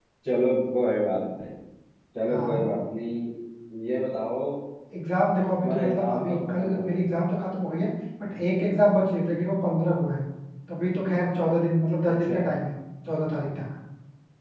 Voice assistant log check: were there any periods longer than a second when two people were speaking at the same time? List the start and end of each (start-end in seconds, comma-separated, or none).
5.6-7.0